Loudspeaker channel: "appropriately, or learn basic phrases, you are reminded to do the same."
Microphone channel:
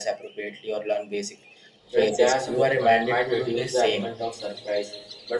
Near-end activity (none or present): present